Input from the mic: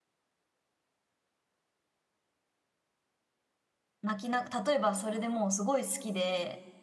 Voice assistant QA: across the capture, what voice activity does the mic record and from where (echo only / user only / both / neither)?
user only